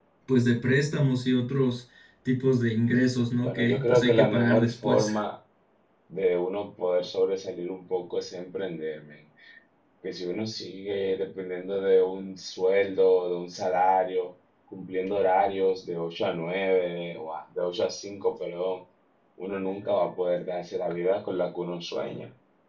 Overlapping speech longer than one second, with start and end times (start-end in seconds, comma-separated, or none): 3.4-5.1